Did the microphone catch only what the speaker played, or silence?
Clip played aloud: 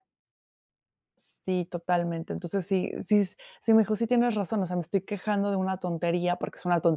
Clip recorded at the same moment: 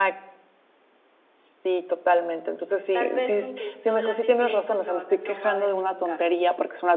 No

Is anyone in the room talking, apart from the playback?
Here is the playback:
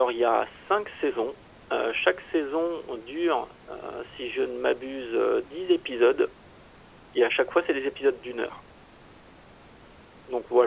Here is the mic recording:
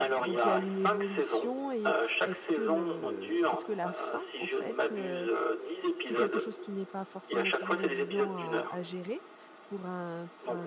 Yes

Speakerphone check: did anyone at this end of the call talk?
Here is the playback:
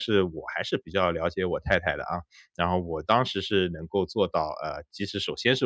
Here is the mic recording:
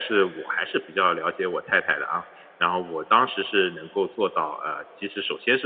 No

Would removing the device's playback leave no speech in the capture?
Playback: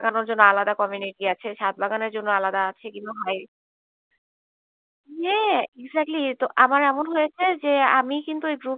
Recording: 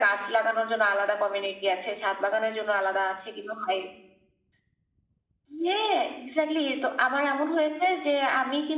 Yes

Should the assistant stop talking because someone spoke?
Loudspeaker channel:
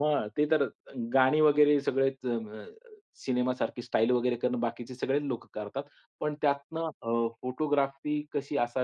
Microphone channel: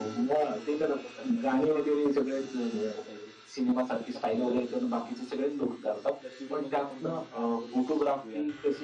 Yes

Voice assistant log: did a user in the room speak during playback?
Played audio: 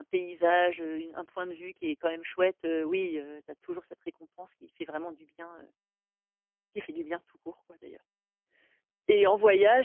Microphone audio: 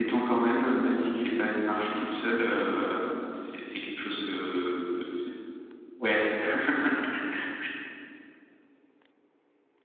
Yes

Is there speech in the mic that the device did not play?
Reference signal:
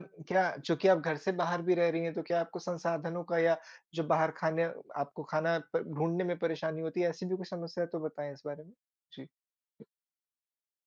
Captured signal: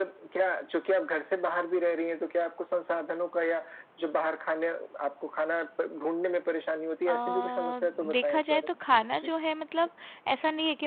Yes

